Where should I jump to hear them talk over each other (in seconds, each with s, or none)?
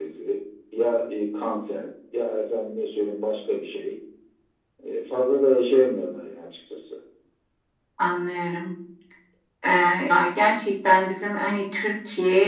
none